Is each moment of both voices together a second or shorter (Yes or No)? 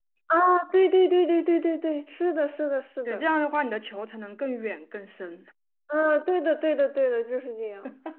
Yes